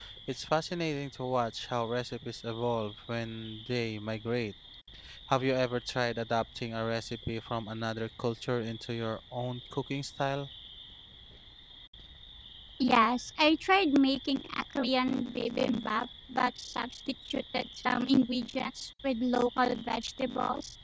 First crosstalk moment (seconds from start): none

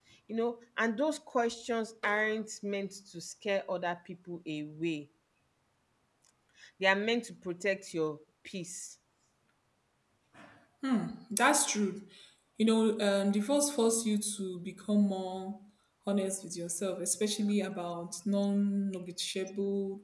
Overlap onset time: none

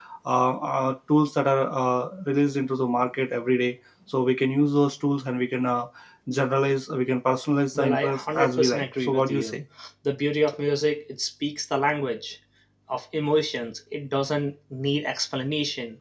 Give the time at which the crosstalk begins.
7.8 s

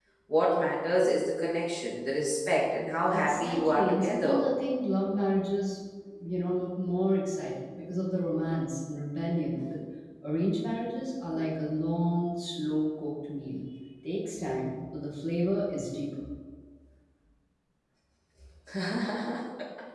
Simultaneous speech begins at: 3.1 s

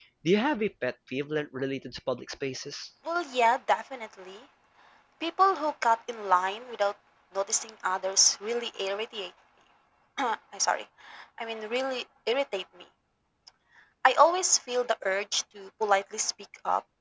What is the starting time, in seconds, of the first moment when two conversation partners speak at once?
none

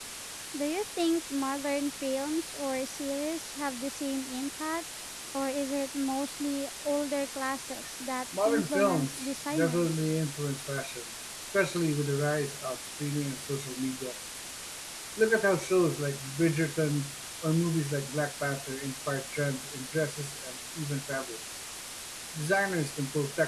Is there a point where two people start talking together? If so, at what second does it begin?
8.3 s

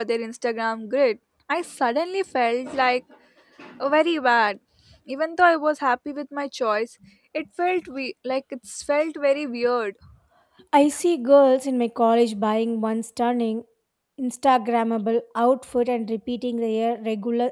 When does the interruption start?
none

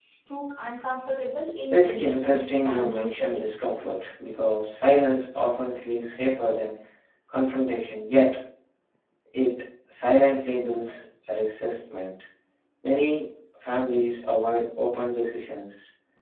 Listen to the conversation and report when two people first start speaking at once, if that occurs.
1.7 s

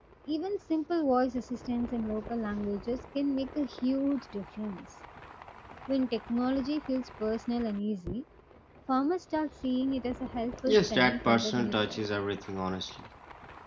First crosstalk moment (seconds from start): 10.7 s

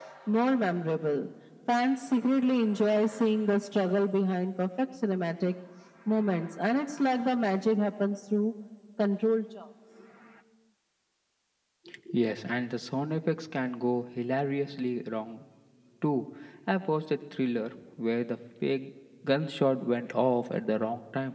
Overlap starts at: none

